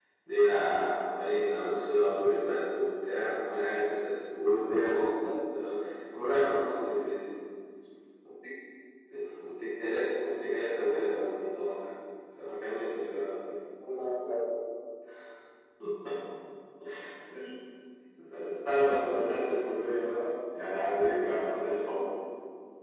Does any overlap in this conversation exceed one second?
No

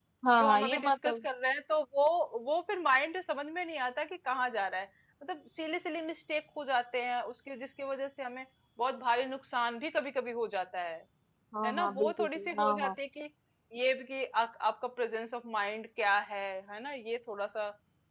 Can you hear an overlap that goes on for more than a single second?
Yes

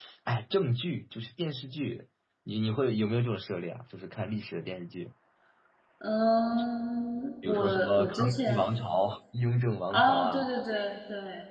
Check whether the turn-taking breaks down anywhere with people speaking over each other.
Yes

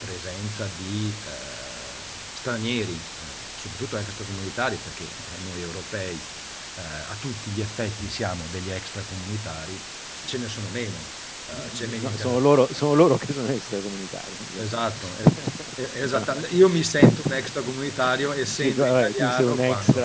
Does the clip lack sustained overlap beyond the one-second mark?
No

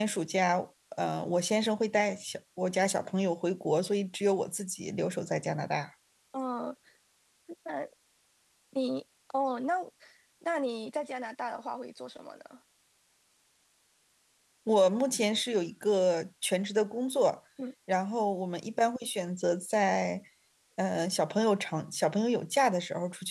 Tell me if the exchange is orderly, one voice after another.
Yes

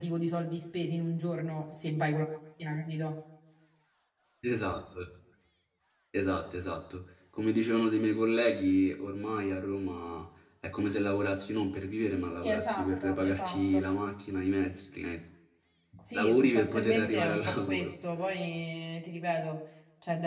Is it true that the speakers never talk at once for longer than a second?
No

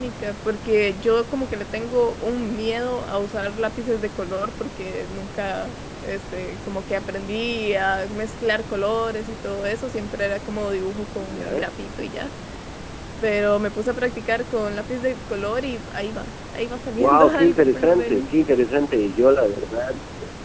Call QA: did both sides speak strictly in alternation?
No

